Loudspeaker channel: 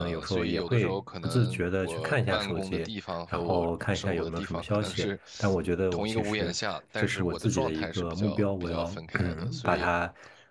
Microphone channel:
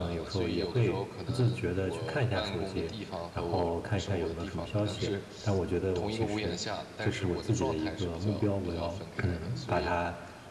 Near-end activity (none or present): none